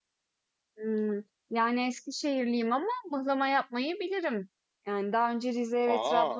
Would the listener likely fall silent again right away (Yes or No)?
Yes